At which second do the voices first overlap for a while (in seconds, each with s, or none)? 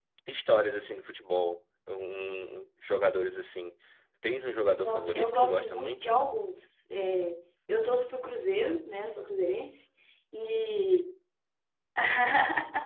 4.7 s